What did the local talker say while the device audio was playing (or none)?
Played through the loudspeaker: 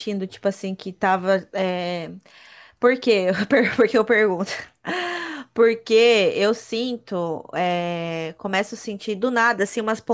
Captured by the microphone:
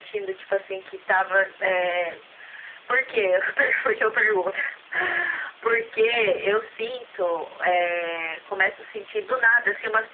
none